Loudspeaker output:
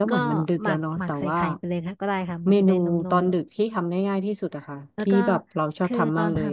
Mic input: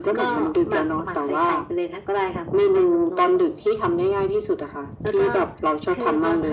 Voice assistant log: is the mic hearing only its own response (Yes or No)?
Yes